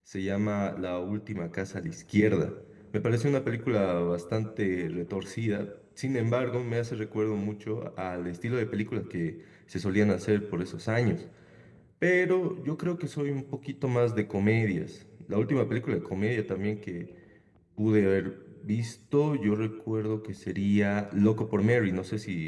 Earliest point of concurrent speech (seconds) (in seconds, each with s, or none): none